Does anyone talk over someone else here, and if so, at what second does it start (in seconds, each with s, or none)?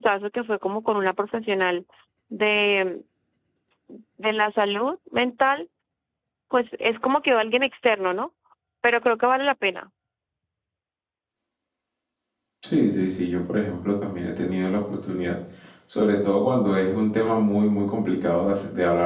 none